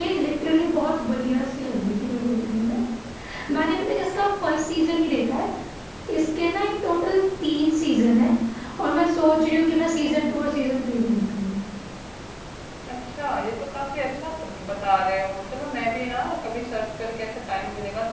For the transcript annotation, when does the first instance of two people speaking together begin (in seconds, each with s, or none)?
none